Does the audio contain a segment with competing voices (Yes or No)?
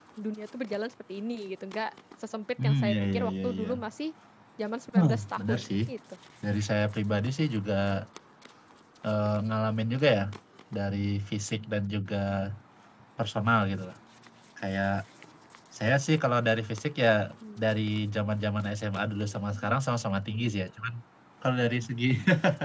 Yes